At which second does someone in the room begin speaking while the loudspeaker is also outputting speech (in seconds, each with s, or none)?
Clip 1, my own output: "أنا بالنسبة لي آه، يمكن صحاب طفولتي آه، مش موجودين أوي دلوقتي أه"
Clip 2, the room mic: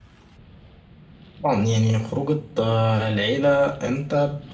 1.4 s